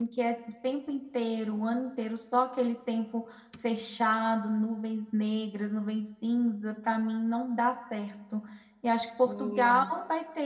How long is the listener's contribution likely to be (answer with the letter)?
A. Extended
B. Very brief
B